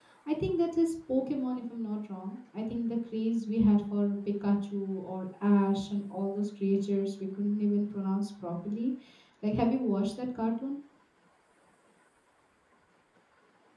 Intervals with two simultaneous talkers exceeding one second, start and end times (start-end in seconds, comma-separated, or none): none